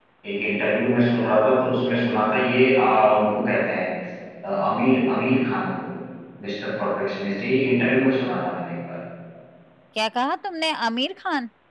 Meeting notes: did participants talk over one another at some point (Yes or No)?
No